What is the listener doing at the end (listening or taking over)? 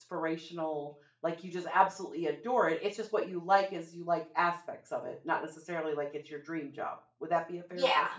taking over